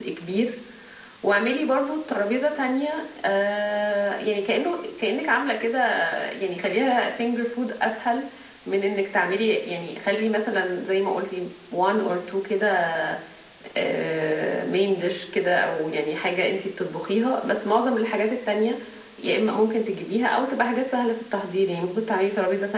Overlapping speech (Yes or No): No